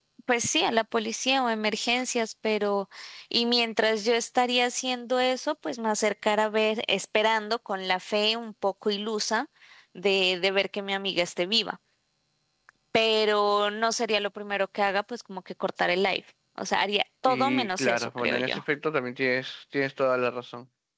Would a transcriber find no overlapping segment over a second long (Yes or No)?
No